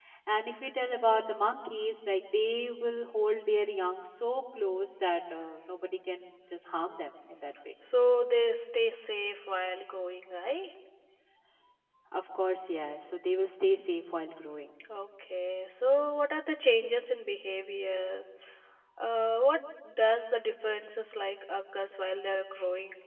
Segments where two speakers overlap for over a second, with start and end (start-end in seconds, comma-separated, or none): none